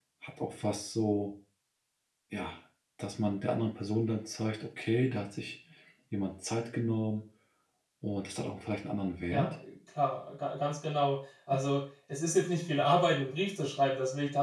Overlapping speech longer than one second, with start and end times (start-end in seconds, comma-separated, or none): none